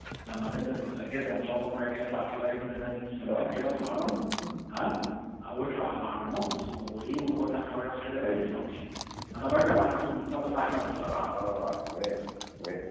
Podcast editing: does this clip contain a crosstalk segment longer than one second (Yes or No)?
No